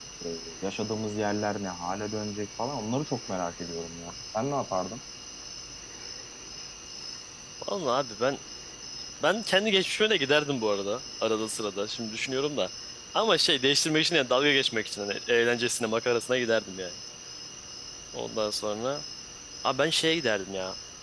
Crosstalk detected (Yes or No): No